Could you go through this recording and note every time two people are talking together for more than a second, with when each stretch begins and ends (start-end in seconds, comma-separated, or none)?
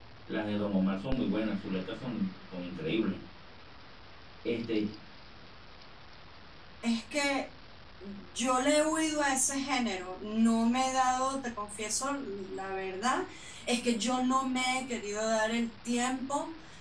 none